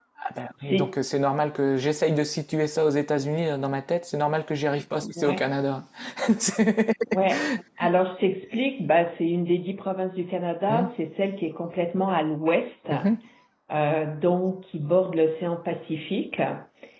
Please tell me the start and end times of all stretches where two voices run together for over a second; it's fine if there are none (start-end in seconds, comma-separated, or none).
none